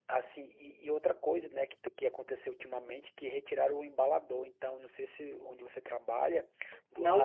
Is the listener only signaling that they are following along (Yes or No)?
Yes